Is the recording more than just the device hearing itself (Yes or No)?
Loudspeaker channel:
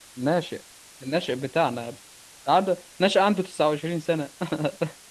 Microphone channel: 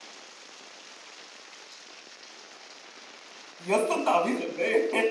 Yes